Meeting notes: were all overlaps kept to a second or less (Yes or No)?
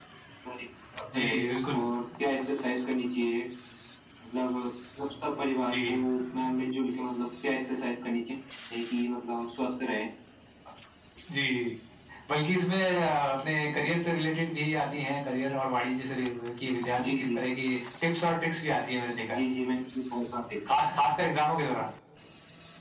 Yes